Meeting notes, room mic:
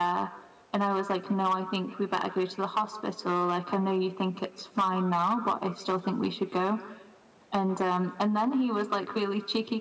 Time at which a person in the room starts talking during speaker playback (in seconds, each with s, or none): none